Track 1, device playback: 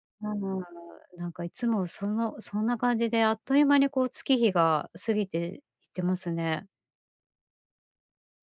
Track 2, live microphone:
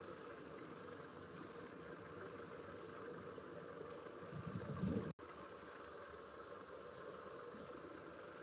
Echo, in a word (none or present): none